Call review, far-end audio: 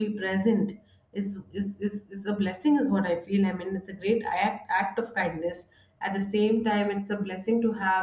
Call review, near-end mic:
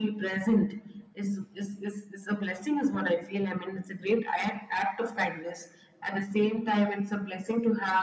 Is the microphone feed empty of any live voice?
Yes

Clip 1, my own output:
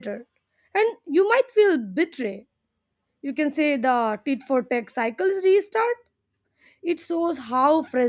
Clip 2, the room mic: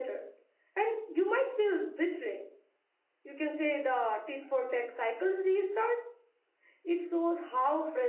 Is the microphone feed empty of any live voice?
Yes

